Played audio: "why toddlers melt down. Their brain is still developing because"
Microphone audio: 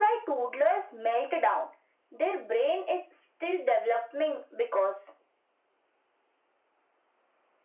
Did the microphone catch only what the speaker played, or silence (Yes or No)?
Yes